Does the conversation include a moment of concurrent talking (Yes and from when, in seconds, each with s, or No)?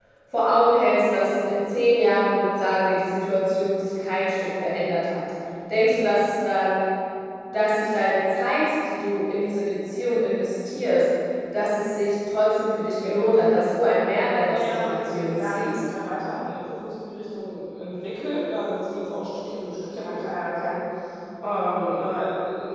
Yes, from 14.5 s